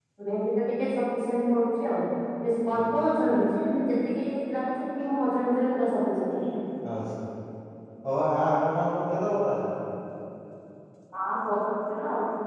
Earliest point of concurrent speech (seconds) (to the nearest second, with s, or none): none